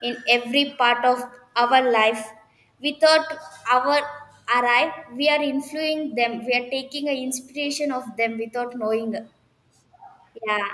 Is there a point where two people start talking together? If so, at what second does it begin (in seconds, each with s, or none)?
none